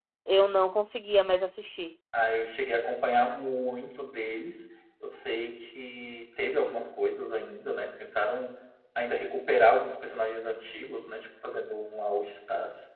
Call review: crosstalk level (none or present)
none